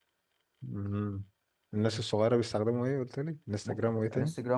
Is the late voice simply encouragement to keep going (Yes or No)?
No